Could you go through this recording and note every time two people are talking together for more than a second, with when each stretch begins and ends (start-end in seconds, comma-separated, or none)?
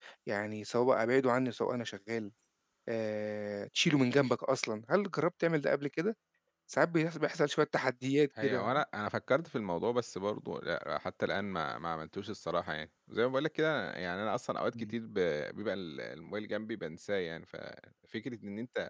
none